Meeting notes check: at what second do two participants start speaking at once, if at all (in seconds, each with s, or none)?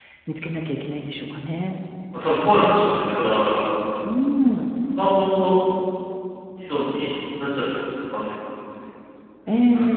none